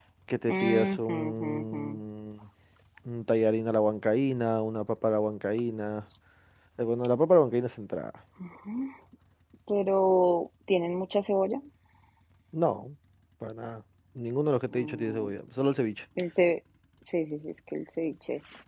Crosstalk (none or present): present